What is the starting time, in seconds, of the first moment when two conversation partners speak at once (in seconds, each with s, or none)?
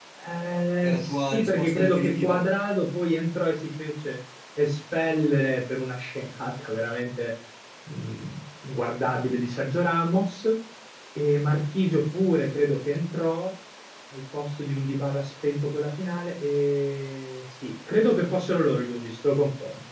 0.8 s